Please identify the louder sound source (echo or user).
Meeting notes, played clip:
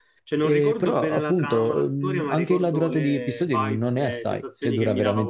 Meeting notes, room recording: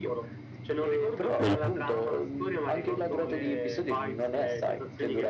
user